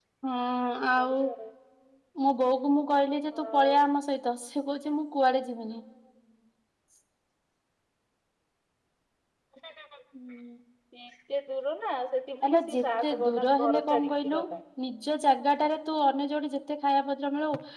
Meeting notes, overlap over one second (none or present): present